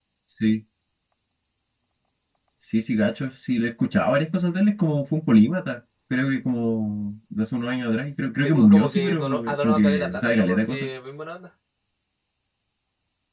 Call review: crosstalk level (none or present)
present